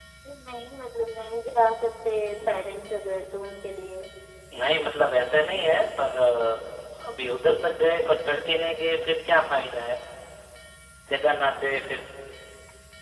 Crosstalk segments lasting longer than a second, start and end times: none

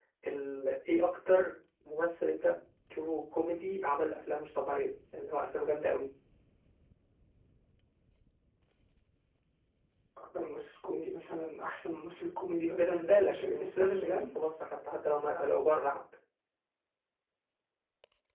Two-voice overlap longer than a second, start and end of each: 12.7-14.3

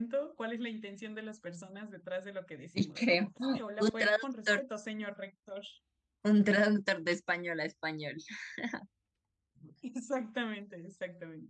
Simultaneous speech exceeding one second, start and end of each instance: 2.8-4.6

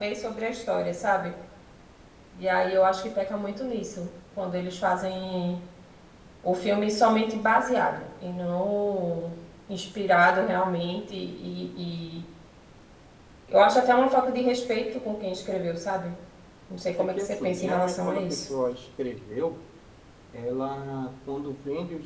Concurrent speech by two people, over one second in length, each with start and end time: 17.0-18.5

